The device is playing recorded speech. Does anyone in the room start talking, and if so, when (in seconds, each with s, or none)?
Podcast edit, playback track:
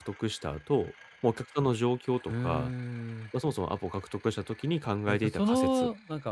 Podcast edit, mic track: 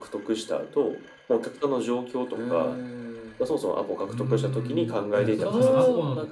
4.1 s